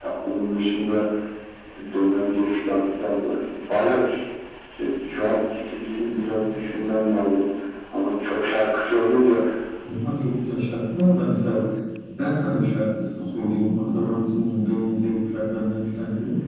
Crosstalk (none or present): none